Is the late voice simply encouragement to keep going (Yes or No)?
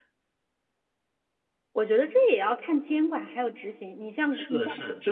No